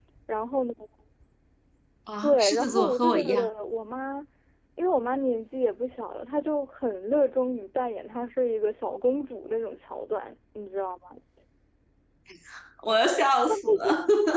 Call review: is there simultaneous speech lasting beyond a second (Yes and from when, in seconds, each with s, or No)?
Yes, from 2.2 s